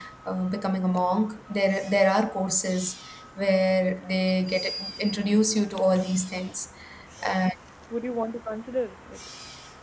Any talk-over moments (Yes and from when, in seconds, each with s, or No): No